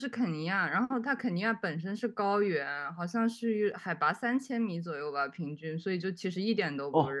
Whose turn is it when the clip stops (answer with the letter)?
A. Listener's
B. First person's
A